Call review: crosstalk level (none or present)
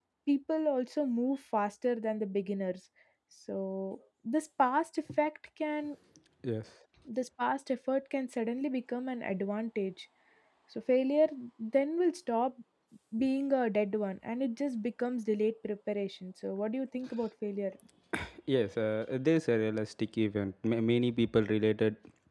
none